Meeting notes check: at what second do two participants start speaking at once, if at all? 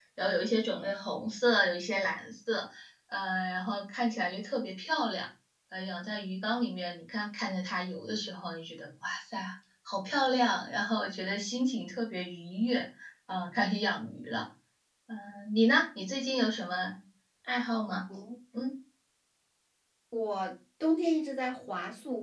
none

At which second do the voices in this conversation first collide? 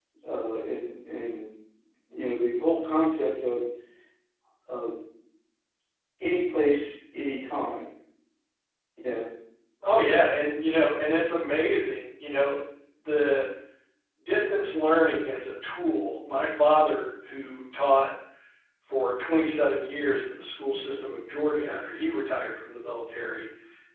none

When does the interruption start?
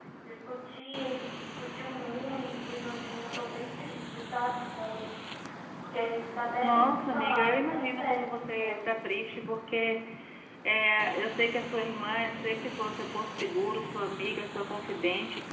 6.6 s

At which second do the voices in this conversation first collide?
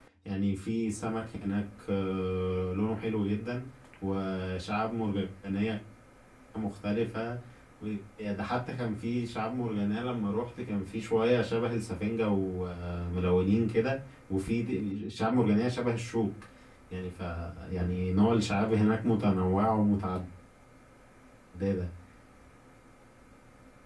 none

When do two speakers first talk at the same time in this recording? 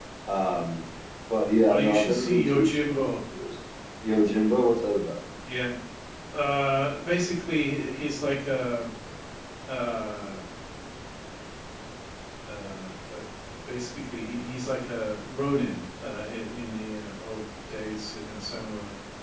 1.7 s

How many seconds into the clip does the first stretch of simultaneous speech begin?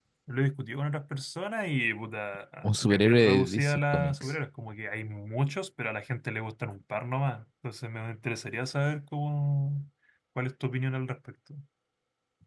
2.6 s

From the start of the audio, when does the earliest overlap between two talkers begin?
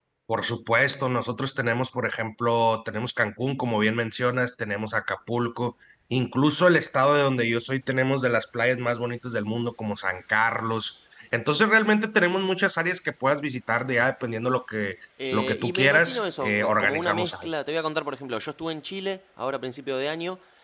15.2 s

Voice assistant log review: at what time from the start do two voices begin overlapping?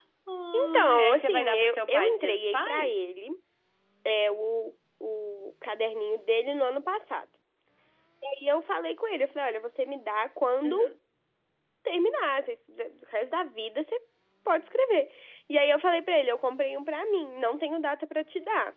0.5 s

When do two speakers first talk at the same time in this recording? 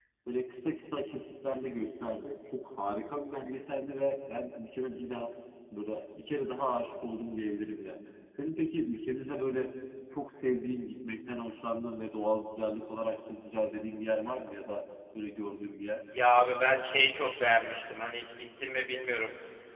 none

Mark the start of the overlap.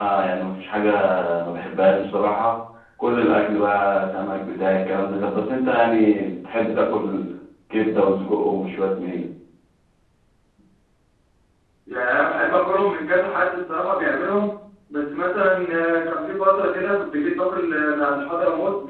none

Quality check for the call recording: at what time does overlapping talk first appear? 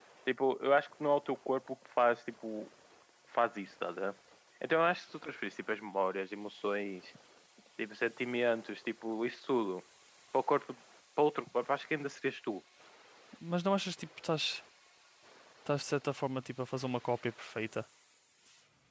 none

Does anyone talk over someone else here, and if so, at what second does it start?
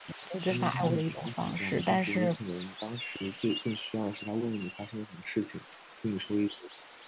0.5 s

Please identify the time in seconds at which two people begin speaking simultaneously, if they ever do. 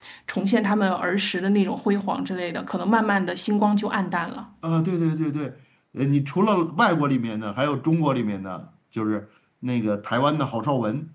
none

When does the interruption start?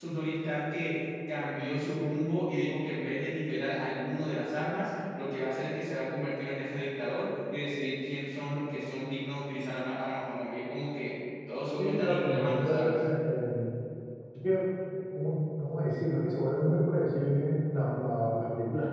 11.8 s

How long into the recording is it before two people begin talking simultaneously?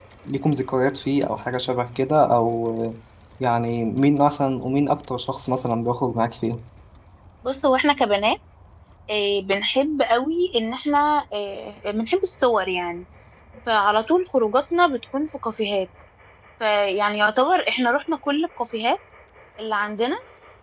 none

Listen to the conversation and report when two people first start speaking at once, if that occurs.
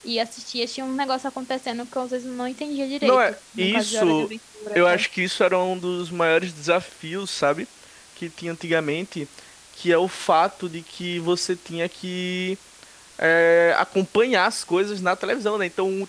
3.0 s

